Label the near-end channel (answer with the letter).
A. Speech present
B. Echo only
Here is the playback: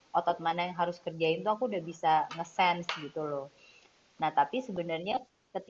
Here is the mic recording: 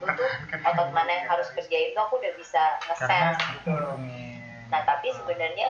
A